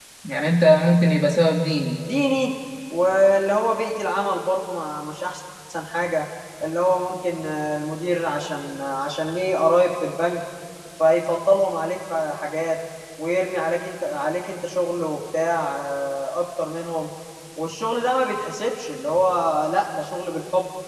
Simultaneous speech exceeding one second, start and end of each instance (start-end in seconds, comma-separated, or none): none